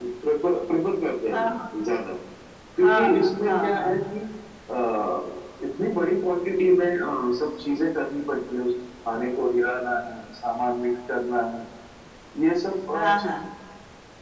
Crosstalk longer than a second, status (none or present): present